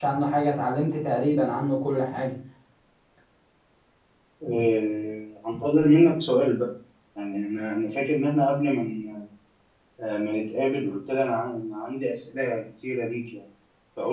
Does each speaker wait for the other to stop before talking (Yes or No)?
Yes